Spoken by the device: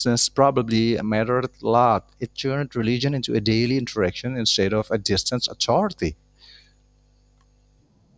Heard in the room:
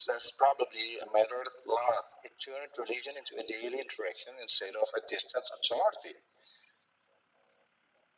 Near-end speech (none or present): none